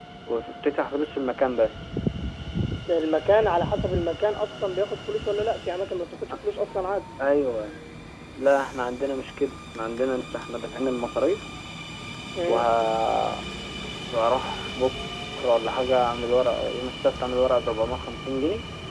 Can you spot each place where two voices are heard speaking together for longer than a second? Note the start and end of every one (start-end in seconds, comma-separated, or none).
none